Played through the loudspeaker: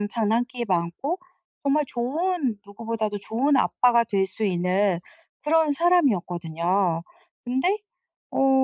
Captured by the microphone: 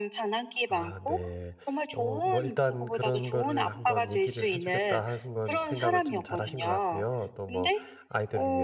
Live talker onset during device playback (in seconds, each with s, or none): 0.7 s